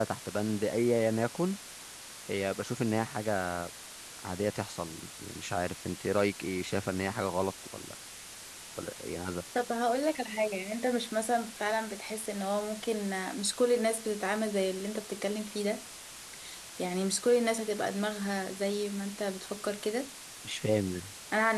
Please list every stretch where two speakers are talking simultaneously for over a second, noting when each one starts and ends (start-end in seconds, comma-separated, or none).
none